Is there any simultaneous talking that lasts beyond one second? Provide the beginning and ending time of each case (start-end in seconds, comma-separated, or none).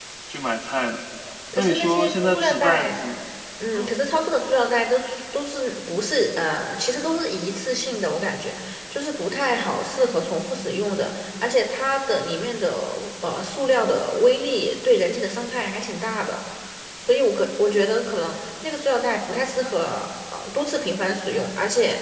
1.6-2.9